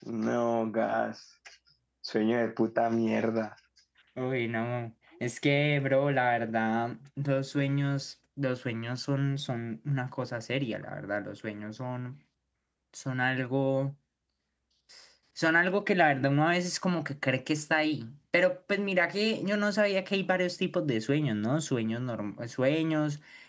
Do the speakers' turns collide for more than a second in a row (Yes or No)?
No